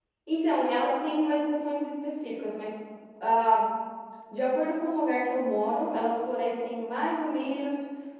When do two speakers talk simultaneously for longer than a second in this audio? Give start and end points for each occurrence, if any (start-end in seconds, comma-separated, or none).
none